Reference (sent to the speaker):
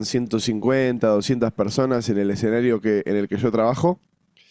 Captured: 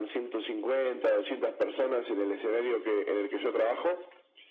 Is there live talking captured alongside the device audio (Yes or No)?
No